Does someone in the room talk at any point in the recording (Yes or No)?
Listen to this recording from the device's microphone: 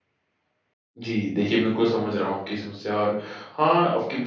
Yes